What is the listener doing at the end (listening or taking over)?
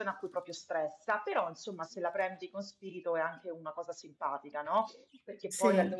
listening